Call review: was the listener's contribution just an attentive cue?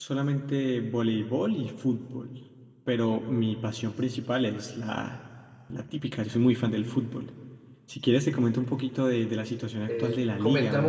No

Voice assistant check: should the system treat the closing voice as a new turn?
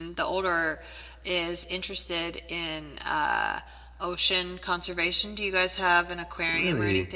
Yes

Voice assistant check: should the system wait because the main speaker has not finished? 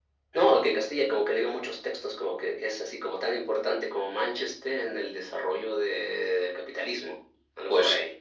No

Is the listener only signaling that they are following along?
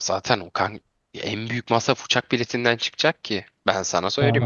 No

